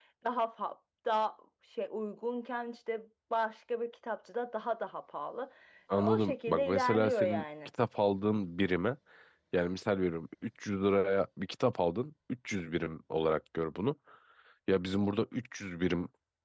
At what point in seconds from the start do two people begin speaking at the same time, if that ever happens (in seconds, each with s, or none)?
5.9 s